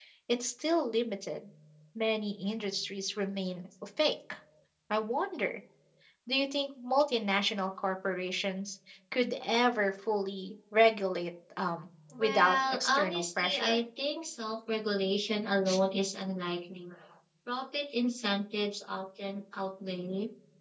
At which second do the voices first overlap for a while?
12.1 s

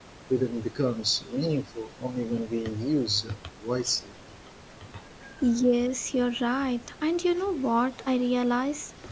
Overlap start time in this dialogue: none

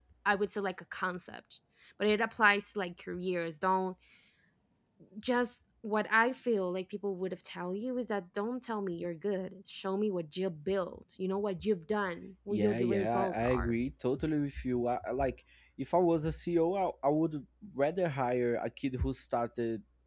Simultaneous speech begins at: 12.5 s

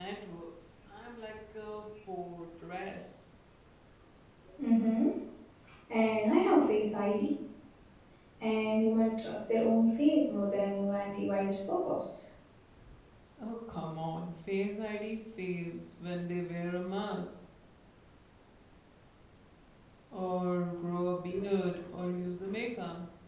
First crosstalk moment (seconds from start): none

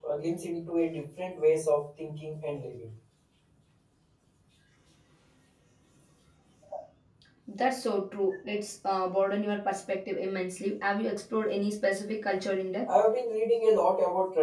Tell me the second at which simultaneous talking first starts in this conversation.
none

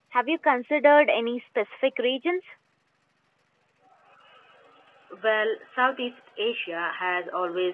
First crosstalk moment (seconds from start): none

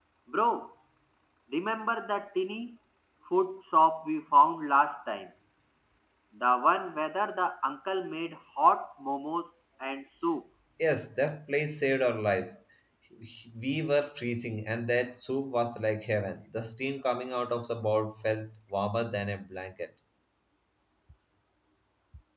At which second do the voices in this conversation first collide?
none

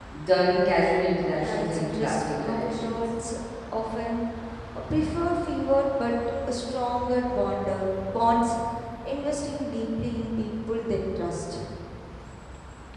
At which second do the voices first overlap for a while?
1.3 s

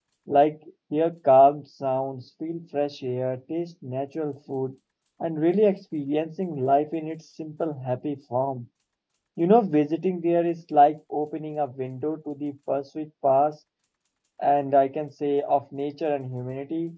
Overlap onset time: none

